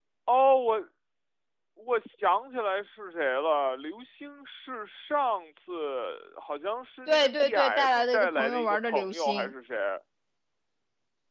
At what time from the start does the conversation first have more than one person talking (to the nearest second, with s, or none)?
7 s